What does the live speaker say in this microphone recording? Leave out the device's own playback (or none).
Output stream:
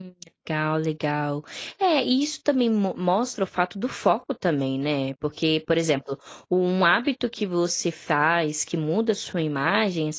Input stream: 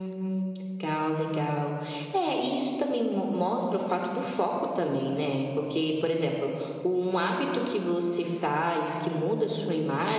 none